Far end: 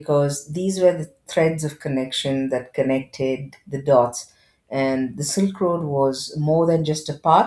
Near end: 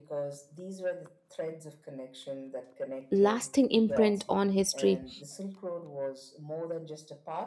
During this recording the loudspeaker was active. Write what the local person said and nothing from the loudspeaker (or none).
lasting imprint on history.